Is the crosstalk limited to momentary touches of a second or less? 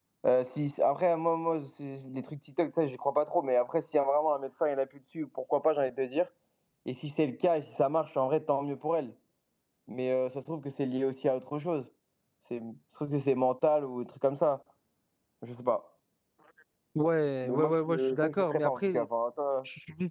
No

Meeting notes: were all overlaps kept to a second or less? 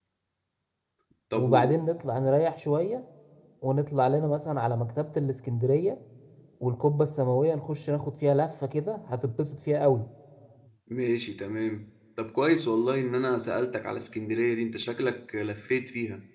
Yes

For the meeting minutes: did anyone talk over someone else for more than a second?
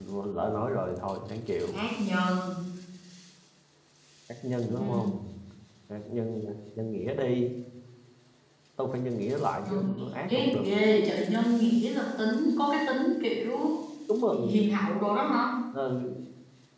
No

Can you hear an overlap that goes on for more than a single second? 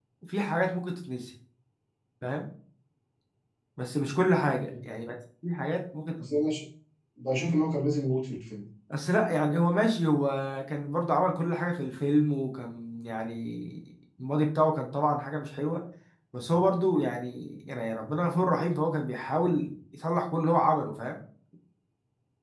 No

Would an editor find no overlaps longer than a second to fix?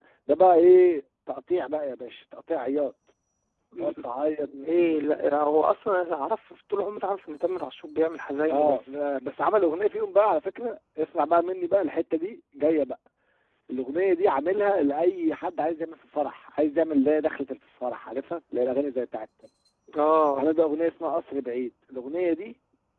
Yes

